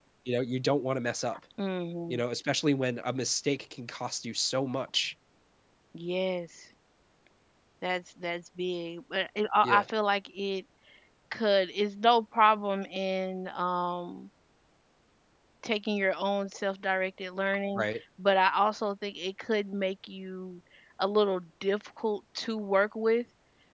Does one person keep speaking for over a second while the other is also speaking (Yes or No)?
No